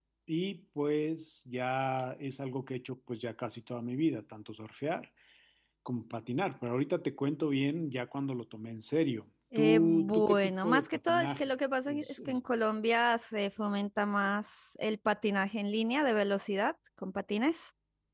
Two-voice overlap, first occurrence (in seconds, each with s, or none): 9.6 s